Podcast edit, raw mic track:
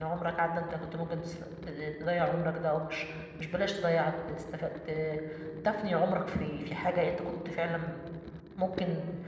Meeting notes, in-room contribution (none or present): present